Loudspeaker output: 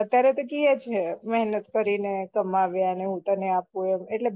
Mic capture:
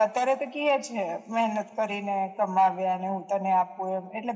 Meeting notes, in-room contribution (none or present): none